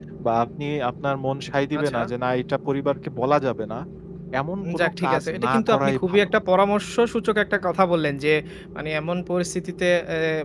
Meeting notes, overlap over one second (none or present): present